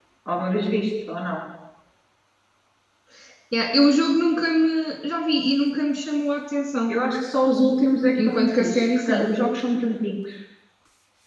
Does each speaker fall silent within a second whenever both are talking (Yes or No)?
No